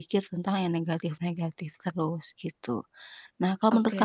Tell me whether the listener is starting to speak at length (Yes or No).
No